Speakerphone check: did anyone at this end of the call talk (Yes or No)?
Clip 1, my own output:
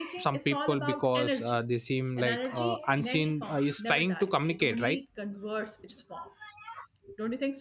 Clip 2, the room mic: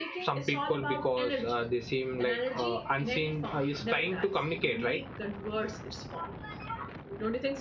No